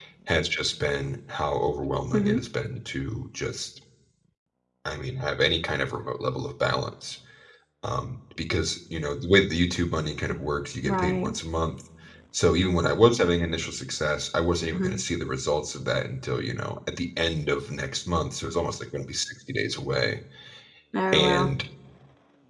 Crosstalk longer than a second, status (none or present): none